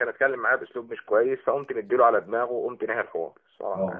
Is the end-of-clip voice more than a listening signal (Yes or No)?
Yes